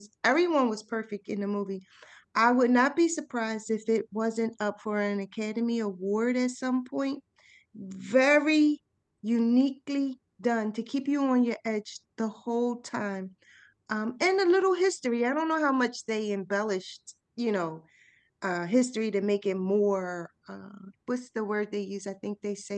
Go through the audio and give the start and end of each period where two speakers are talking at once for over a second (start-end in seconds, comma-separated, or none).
none